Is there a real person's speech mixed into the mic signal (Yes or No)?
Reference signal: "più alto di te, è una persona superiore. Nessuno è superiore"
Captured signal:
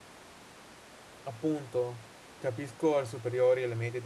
Yes